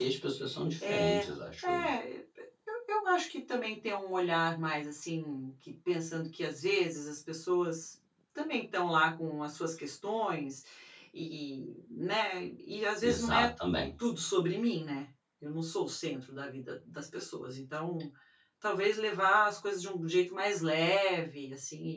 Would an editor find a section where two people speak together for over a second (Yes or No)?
No